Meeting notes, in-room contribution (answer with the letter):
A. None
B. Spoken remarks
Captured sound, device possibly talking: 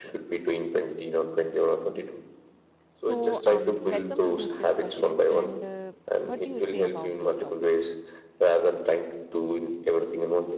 B